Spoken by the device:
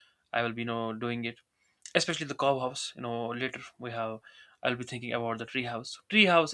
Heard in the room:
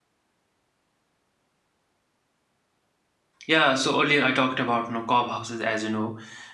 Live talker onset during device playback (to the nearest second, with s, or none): 3 s